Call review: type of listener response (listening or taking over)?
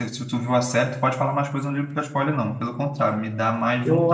taking over